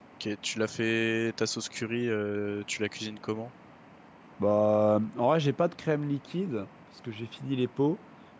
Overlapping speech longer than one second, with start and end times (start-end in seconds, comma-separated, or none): none